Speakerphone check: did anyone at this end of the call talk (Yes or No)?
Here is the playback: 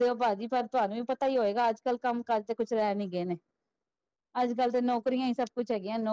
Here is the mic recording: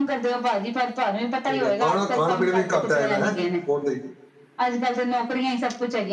Yes